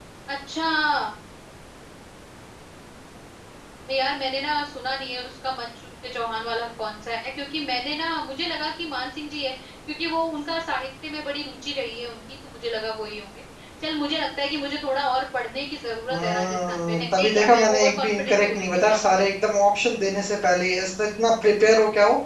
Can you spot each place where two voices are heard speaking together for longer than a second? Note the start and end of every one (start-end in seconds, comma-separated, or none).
16.1-19.2